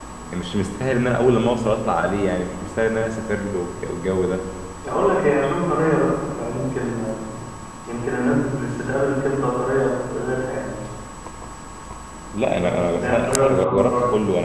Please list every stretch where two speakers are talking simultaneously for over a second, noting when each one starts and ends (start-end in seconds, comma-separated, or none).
12.6-13.9